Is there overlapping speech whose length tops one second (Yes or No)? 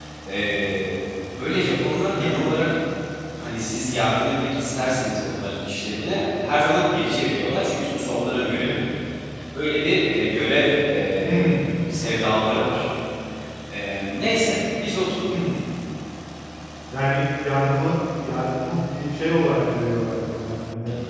No